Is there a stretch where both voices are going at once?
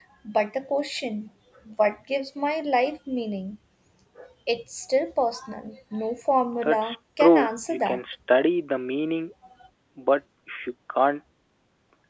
Yes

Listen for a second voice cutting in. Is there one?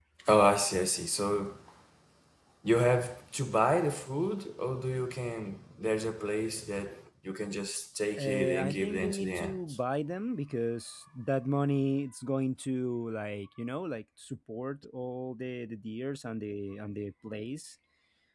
Yes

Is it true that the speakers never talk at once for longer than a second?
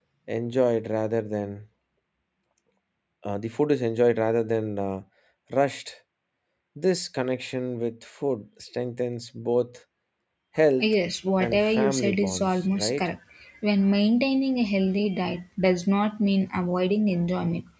No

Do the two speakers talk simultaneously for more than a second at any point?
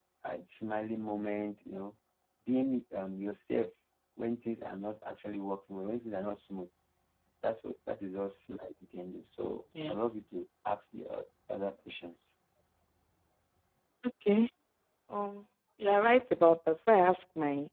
No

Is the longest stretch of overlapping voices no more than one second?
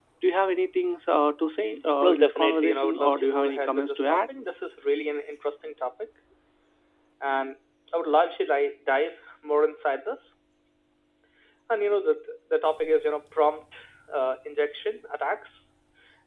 No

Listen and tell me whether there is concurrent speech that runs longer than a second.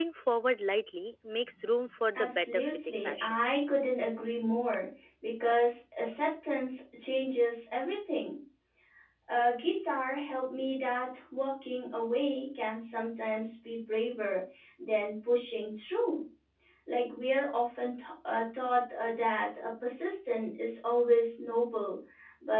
Yes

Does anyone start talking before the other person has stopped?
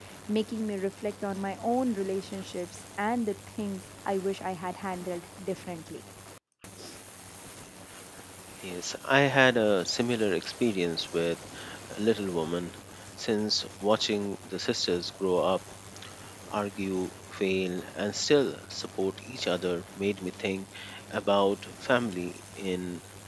No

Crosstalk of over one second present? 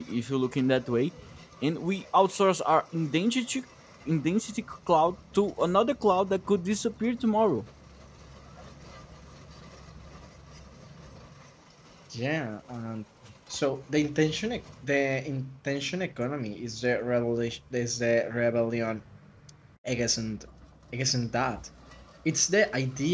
No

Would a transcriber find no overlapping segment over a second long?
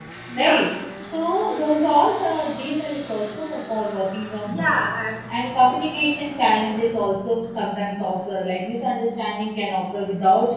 Yes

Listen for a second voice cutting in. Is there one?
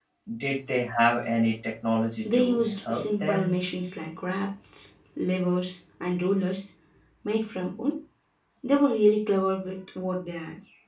Yes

